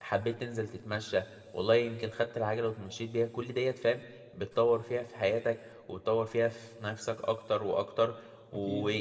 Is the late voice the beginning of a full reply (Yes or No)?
No